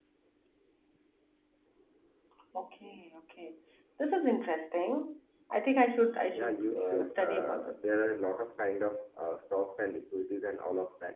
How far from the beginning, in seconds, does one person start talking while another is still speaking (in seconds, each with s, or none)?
6.3 s